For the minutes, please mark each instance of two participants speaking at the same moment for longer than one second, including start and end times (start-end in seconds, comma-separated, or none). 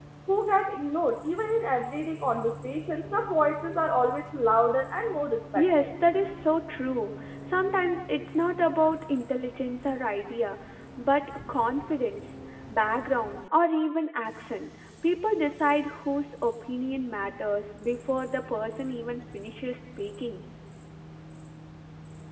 none